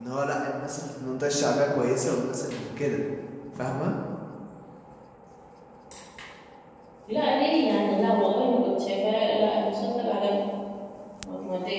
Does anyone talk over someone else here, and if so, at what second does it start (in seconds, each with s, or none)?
none